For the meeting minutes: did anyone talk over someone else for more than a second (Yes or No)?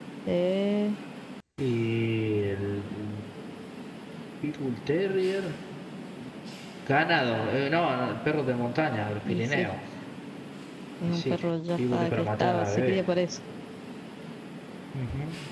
Yes